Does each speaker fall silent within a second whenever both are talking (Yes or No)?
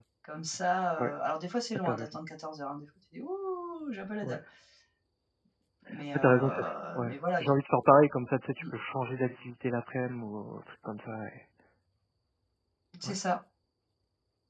No